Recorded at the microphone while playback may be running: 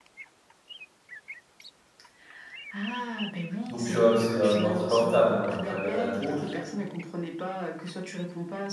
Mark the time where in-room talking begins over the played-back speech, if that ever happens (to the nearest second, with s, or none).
4 s